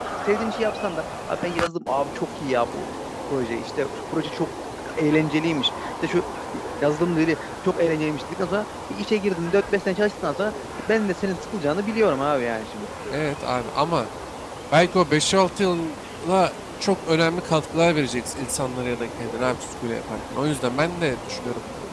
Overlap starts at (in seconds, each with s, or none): none